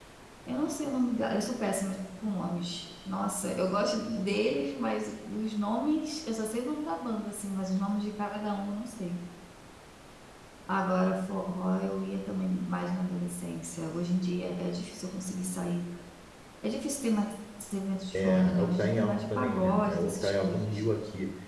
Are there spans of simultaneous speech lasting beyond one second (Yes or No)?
Yes